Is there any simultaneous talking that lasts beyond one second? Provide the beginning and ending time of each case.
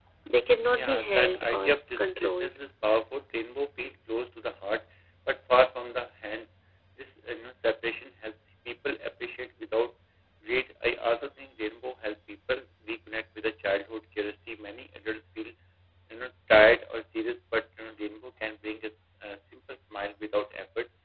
0.7-2.5

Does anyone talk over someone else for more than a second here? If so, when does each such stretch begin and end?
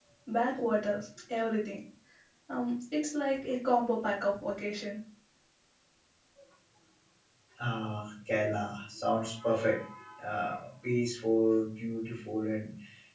none

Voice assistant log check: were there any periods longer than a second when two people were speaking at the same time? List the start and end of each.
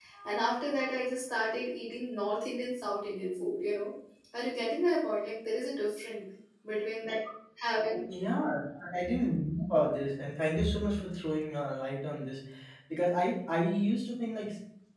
none

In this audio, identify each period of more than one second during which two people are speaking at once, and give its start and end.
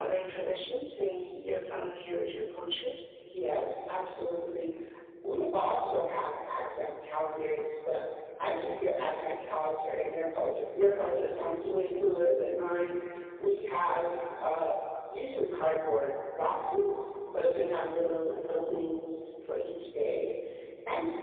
none

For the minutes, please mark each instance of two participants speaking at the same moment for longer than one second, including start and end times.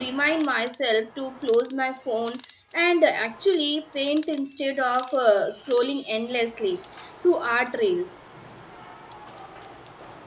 none

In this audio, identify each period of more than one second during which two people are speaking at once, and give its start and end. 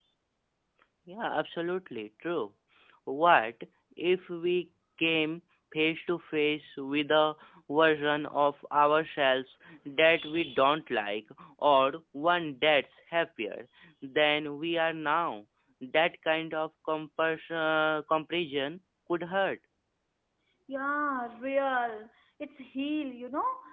none

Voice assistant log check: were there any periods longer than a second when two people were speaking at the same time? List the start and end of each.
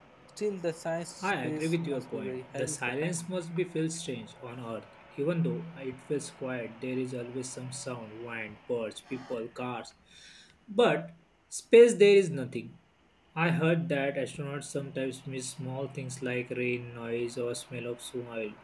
1.2-3.3

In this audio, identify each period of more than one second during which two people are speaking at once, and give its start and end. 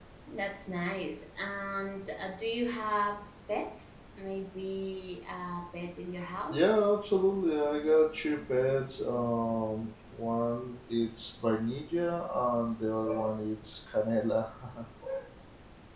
none

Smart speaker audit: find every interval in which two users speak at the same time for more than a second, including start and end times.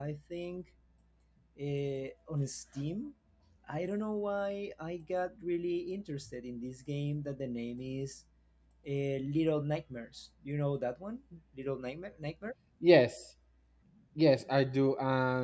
none

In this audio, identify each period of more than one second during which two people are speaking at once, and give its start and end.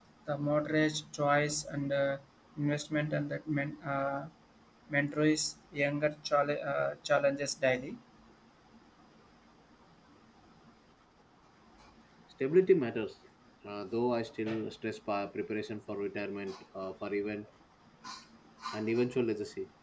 none

